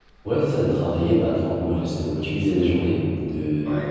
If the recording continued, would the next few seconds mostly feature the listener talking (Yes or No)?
No